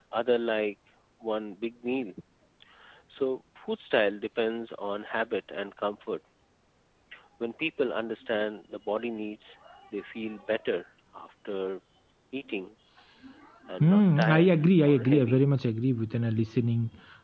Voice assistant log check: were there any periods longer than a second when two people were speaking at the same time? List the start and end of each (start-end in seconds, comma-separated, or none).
13.8-15.4